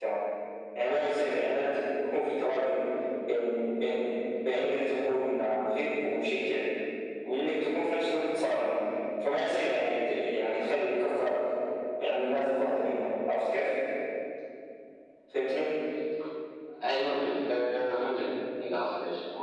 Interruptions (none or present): none